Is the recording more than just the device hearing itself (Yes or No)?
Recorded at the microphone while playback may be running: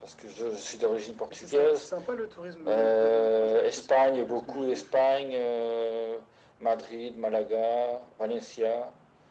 No